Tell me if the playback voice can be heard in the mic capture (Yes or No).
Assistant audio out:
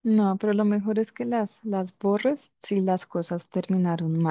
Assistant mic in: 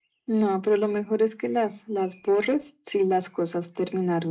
Yes